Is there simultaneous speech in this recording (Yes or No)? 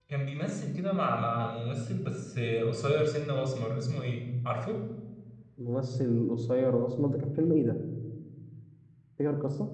No